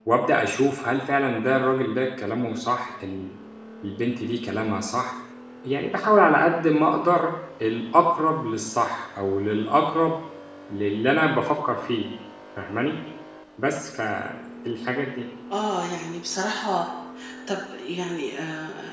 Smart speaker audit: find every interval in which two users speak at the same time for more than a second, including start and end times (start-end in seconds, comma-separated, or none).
none